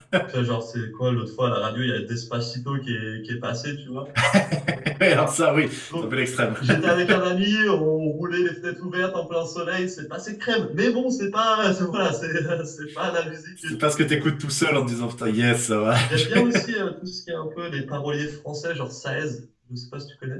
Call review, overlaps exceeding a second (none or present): none